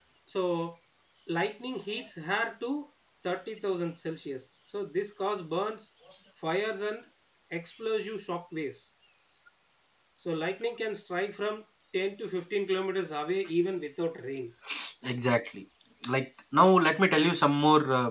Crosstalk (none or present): none